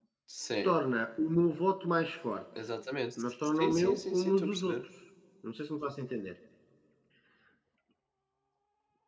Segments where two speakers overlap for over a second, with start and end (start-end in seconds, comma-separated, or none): 3.6-4.8